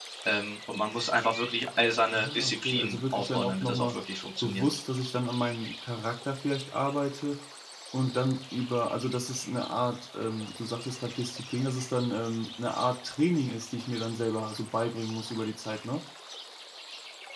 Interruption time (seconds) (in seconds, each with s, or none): 2.1 s